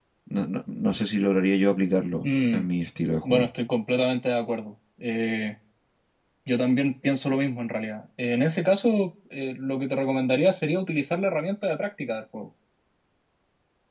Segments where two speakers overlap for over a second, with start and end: none

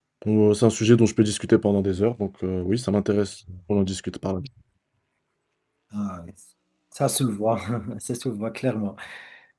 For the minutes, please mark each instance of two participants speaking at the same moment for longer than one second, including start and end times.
none

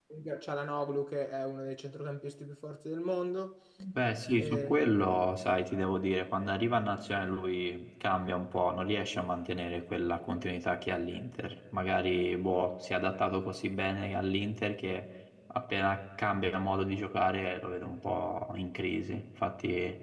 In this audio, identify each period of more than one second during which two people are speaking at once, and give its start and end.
none

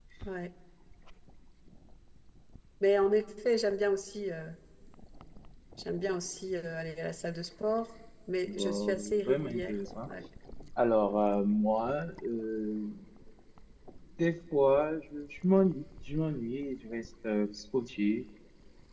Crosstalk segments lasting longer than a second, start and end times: 8.5-9.8

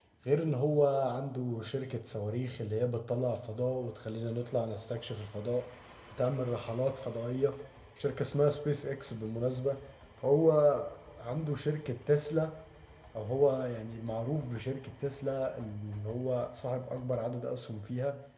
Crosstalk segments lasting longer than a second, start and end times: none

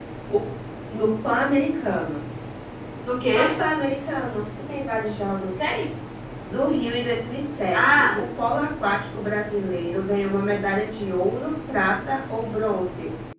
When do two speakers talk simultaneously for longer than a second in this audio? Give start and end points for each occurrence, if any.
none

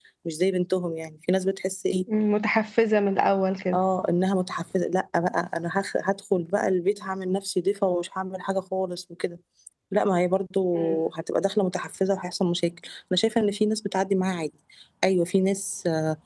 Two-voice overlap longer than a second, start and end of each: none

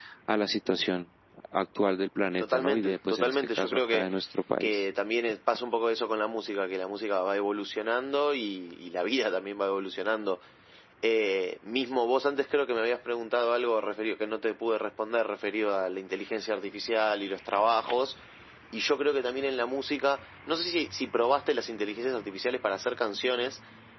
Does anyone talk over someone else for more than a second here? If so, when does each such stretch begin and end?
2.4-4.1

